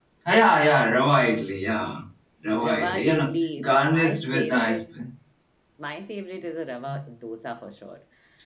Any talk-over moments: Yes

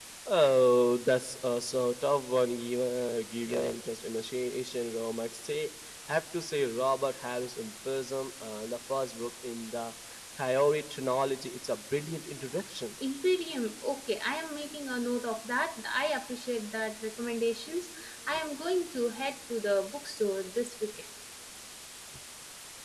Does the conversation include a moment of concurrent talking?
No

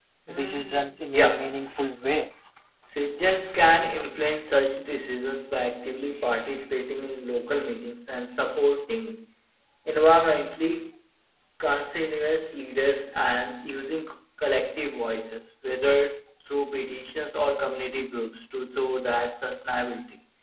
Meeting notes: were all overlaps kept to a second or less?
No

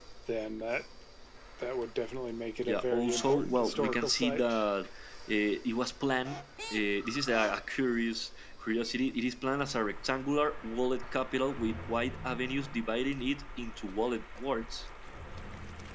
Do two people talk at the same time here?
Yes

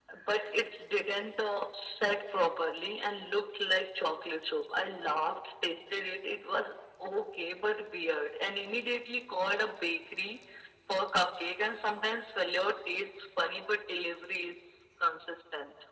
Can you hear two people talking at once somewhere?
No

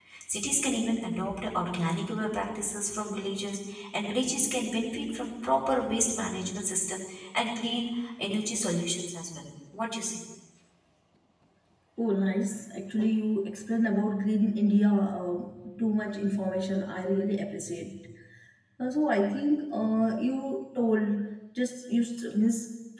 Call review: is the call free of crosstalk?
Yes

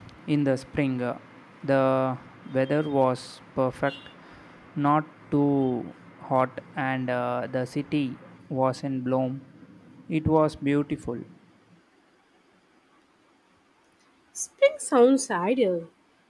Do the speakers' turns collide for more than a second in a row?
No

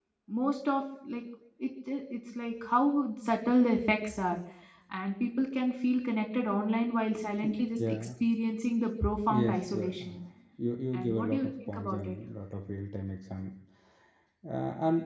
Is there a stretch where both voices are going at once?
Yes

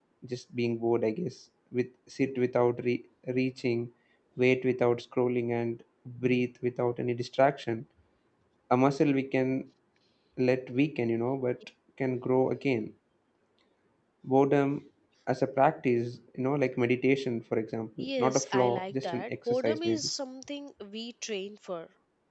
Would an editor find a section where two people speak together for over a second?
Yes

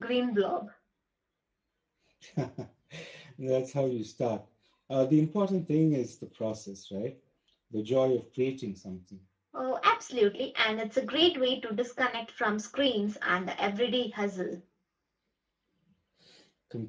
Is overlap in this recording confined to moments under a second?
Yes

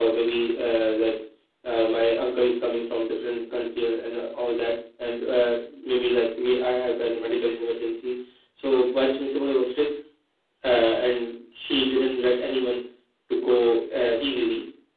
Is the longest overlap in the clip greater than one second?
No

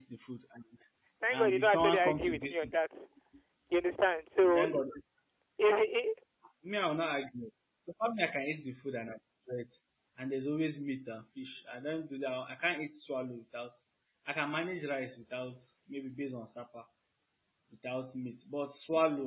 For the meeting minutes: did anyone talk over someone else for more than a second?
Yes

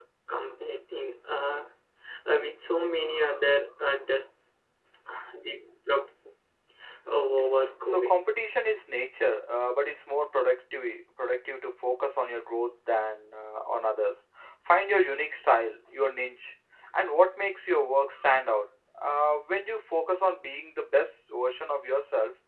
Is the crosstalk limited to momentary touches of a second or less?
Yes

